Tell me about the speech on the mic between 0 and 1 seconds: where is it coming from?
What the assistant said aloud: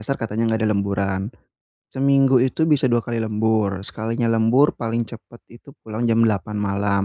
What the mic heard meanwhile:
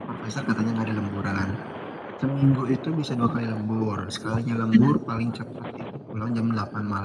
echo only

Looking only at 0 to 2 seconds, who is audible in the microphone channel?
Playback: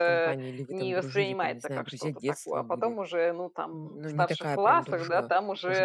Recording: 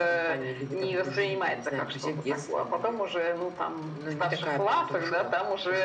echo only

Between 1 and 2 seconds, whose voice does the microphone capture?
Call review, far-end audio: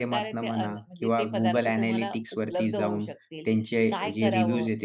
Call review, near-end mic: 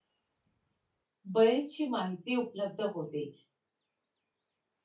user only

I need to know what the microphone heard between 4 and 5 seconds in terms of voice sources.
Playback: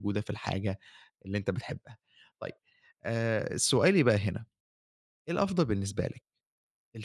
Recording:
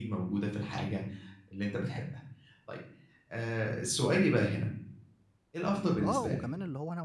echo only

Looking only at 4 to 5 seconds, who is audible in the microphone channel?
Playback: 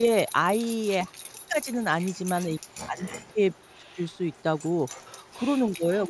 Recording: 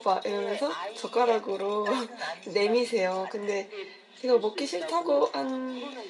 both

